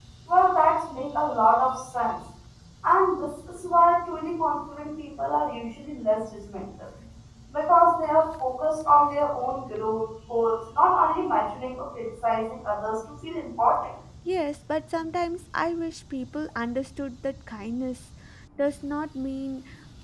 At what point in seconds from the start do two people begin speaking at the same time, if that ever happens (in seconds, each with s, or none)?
none